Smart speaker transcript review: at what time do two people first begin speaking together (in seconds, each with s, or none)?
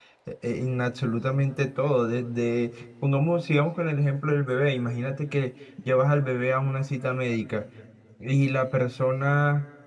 none